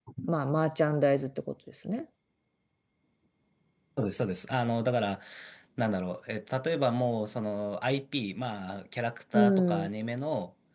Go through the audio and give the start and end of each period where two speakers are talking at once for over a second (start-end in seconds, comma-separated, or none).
none